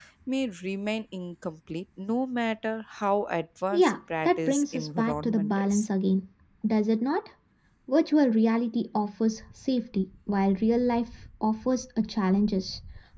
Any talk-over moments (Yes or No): Yes